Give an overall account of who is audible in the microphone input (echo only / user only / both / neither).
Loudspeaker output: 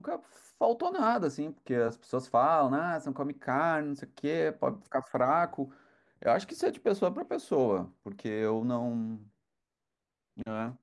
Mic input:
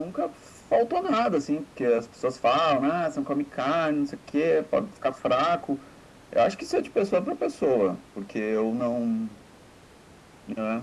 echo only